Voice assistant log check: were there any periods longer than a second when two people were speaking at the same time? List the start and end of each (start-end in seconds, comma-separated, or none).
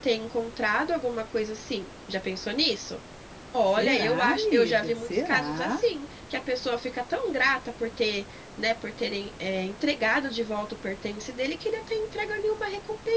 3.8-5.8